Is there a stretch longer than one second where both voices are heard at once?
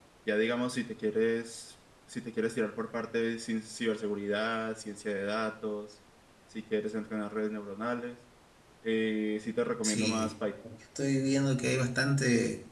No

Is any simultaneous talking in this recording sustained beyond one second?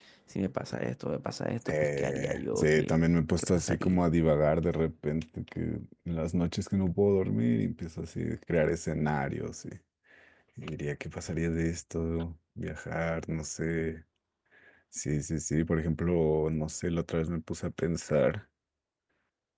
Yes, from 1.6 s

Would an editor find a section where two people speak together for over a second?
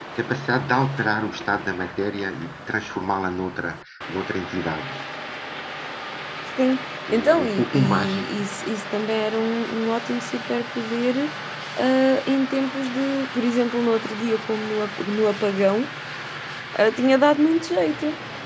Yes, from 7.1 s

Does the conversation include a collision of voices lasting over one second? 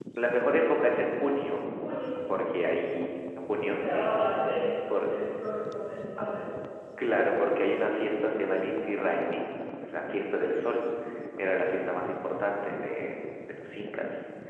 No

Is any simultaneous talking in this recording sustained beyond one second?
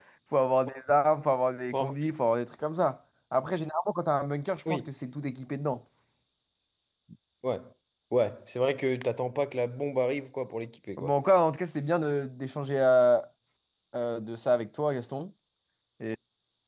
No

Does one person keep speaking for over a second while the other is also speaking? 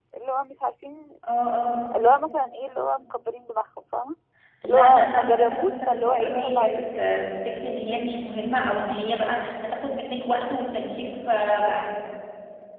Yes, from 4.6 s

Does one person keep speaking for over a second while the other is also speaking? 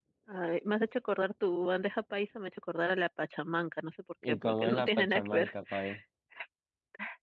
Yes, from 4.2 s

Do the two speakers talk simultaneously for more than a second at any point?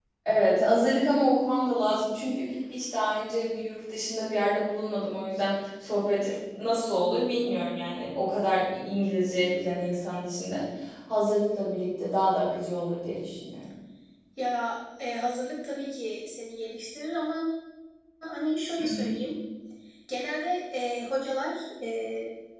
No

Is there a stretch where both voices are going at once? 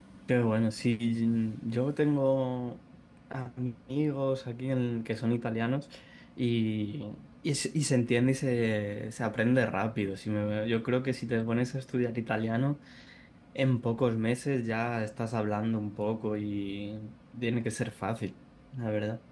No

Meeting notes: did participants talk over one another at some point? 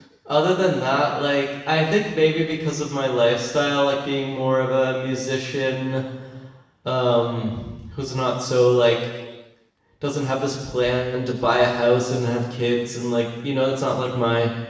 No

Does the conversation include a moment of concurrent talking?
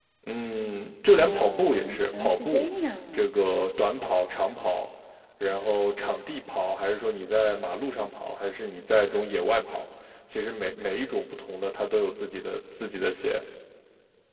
Yes, from 1.1 s

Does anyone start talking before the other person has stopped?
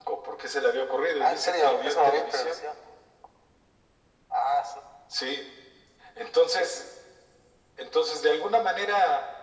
Yes, from 1.2 s

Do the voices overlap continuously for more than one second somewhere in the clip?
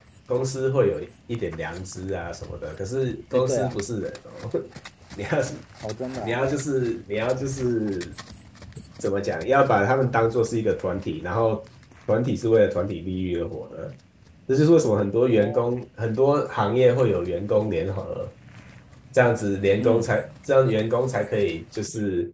No

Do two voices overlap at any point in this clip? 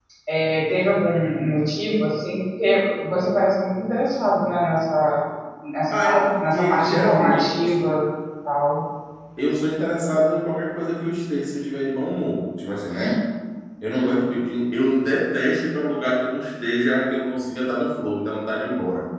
Yes, from 5.9 s

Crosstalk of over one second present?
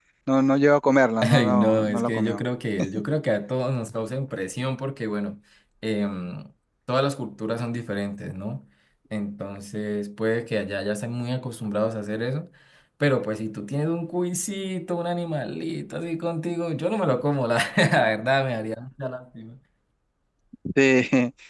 Yes, from 1.2 s

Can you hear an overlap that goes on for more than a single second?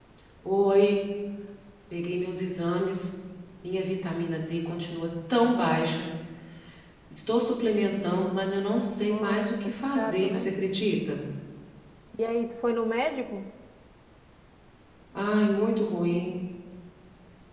Yes, from 9.0 s

